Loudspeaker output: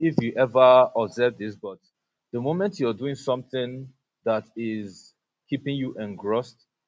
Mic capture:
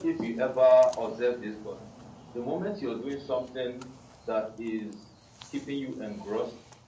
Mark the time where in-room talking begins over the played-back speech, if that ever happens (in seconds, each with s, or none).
none